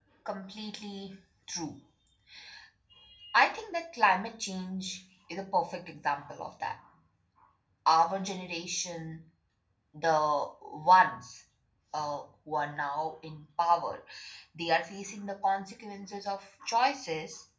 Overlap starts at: none

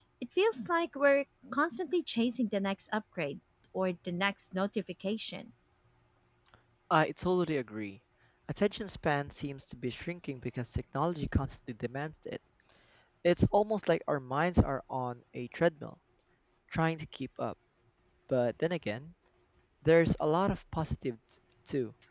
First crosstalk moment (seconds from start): none

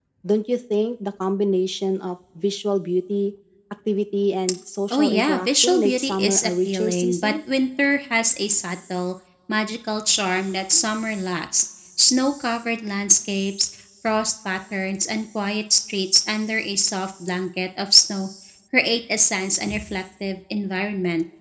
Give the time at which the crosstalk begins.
4.9 s

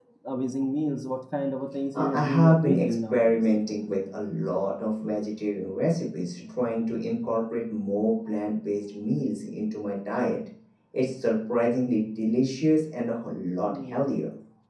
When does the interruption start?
1.9 s

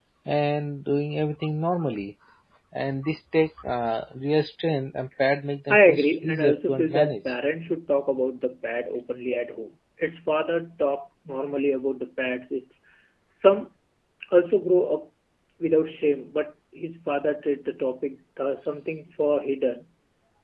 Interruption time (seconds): 5.7 s

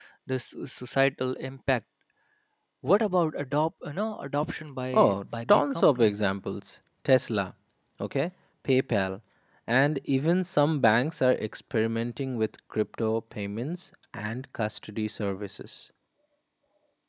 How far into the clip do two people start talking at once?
4.9 s

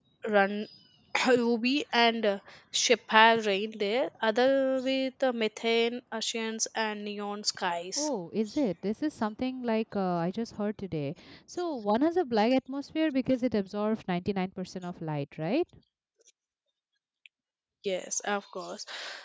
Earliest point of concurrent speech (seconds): none

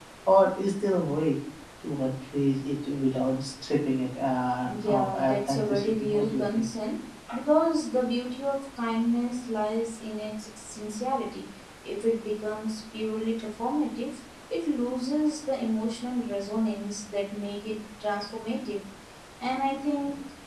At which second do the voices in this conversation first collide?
4.6 s

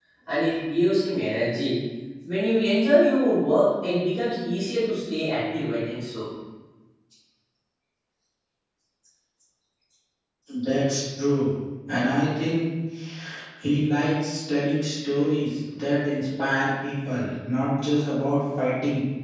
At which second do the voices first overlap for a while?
none

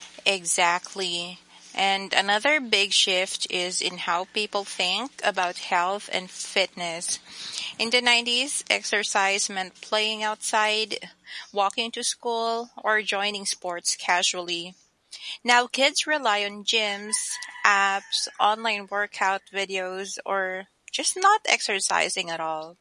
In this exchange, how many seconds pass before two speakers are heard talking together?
none

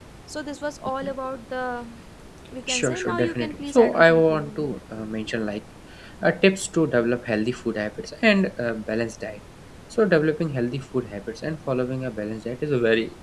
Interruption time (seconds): 2.7 s

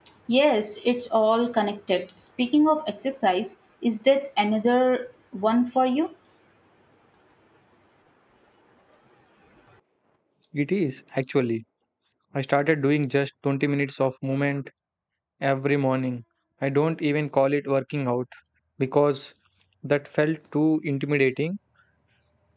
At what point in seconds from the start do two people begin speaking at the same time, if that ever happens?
none

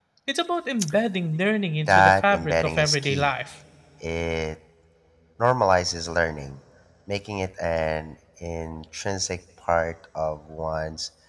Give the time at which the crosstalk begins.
1.9 s

